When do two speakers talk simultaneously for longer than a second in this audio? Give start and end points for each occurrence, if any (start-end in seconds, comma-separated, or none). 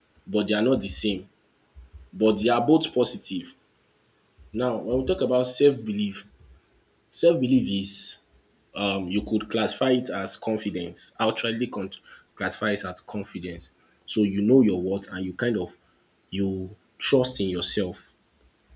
none